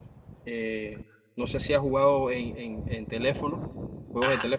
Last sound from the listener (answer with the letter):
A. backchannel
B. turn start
B